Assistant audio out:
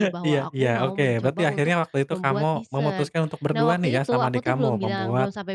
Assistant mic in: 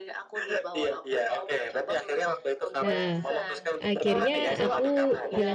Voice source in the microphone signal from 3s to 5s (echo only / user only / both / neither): both